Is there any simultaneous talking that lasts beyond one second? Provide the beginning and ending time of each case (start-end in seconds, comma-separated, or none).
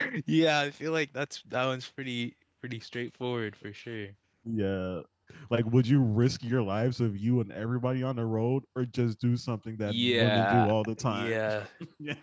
9.9-11.4